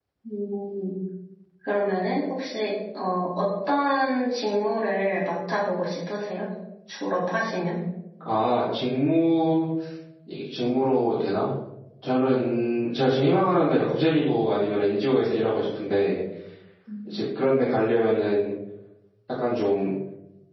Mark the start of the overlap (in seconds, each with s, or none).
none